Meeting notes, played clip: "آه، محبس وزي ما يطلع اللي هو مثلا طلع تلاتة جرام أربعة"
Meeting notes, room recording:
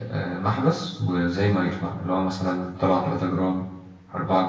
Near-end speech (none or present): none